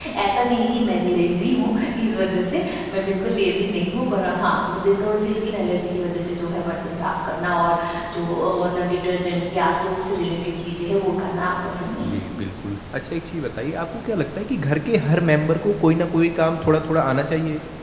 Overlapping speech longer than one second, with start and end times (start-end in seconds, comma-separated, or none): none